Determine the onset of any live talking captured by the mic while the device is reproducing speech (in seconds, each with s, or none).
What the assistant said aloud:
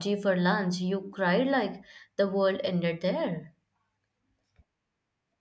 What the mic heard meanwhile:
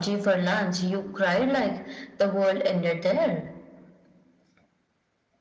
none